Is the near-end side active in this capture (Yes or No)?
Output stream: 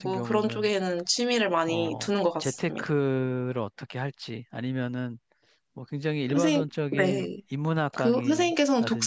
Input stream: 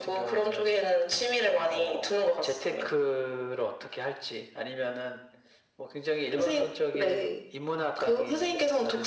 No